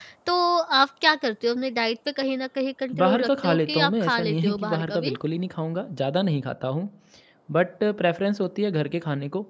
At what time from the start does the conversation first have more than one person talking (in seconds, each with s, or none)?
2.9 s